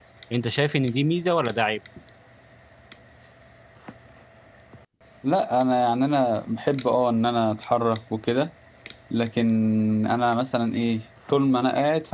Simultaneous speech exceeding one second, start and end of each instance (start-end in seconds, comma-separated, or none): none